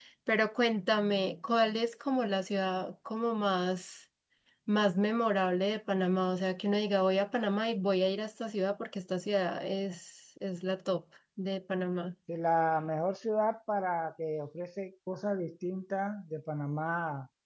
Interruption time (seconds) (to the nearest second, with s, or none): none